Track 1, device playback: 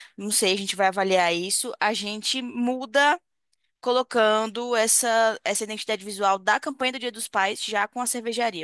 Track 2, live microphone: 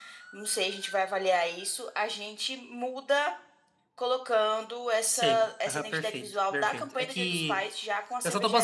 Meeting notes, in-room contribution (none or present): present